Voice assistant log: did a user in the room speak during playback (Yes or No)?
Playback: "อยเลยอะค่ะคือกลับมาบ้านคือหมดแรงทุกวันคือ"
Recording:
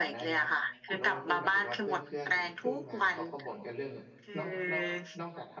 Yes